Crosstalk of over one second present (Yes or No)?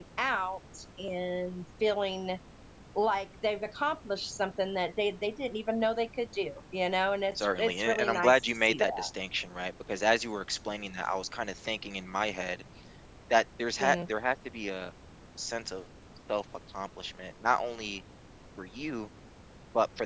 Yes